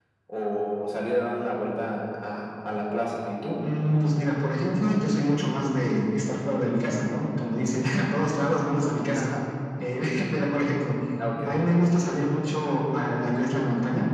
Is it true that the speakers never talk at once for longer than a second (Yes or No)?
Yes